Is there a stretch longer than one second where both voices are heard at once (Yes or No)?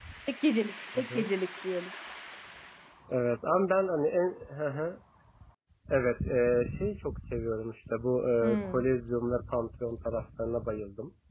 No